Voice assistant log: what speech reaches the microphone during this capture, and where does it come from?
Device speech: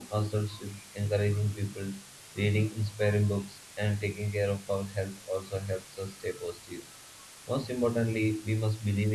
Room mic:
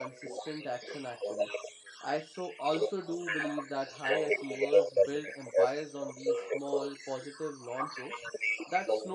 both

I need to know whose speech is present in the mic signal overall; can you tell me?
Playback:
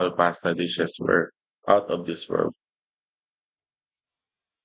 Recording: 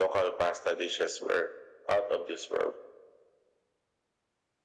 echo only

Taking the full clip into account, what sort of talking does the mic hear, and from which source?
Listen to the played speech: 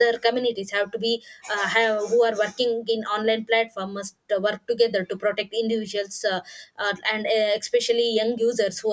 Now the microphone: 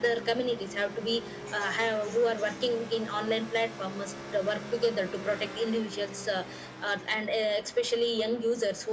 echo only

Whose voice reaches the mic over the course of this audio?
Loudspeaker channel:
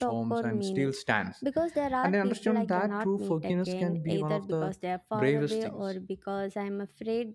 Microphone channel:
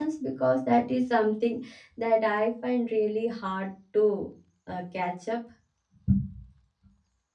user only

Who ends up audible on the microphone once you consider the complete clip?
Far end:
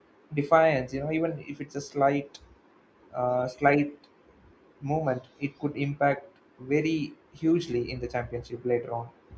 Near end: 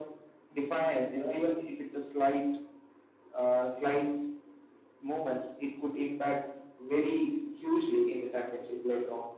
echo only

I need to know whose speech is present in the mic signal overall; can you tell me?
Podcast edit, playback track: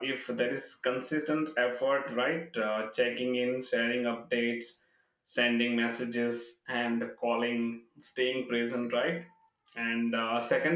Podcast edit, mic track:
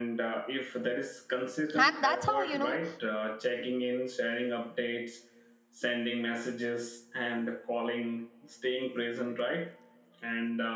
both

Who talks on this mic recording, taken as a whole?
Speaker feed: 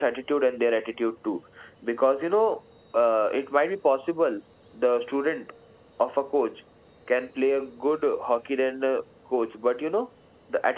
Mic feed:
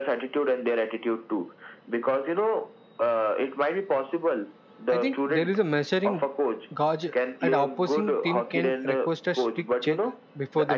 both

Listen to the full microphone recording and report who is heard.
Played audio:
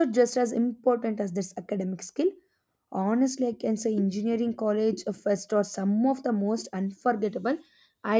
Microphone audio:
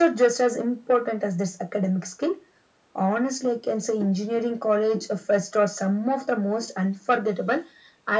echo only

